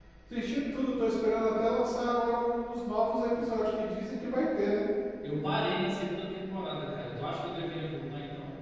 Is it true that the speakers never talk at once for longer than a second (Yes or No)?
Yes